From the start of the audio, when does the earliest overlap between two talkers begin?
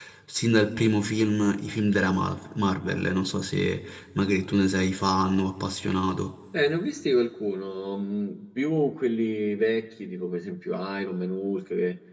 none

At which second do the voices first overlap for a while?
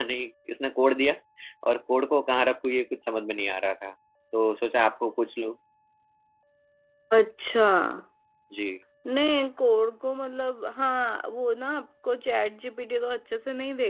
none

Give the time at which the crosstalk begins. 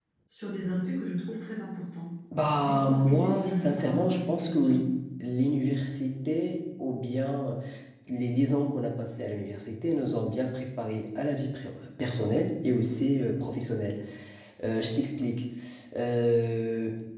2.7 s

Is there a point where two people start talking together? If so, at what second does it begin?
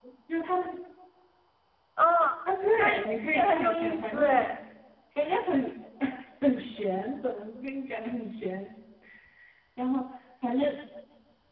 2.8 s

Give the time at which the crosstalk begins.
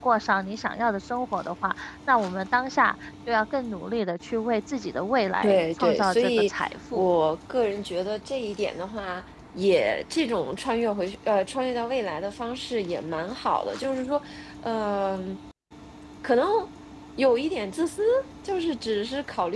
5.4 s

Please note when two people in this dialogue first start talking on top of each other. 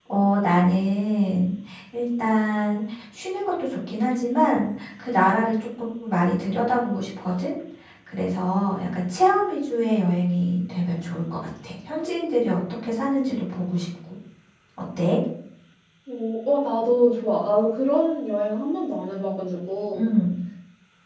none

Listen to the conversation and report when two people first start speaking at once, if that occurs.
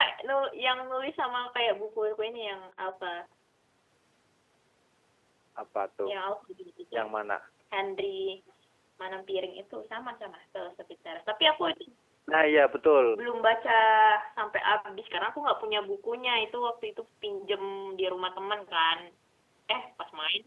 none

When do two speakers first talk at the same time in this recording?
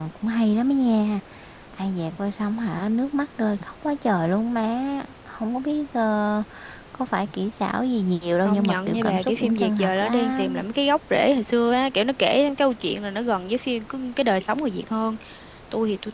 8.4 s

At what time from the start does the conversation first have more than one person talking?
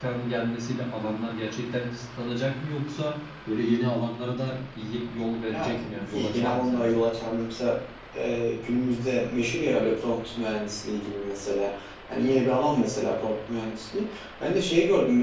5.5 s

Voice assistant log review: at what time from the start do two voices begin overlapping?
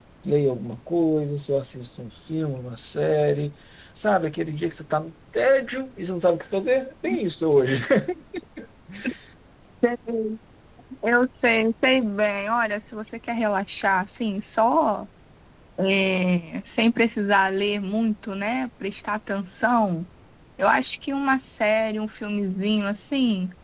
none

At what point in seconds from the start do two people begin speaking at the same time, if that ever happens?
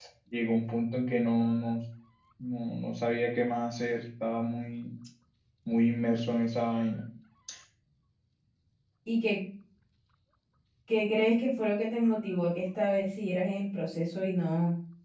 none

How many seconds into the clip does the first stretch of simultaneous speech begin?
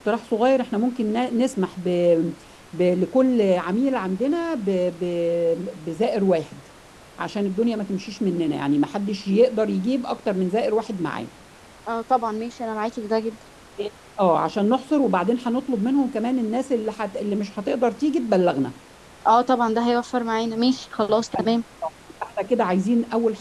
none

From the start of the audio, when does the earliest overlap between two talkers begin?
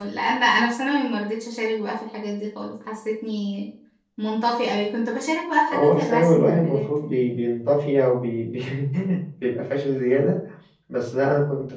5.7 s

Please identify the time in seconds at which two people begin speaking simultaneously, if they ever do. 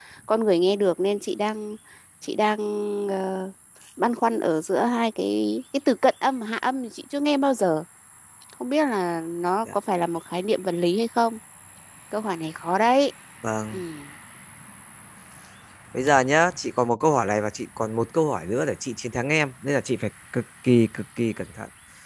none

